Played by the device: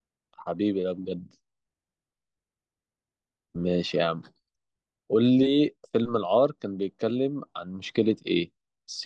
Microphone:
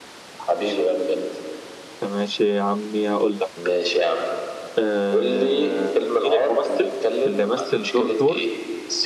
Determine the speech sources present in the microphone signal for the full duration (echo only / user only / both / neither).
both